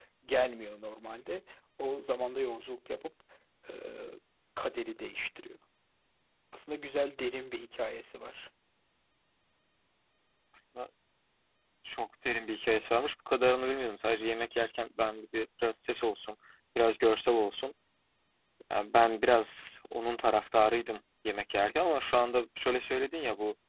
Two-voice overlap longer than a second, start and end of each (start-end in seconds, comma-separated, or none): none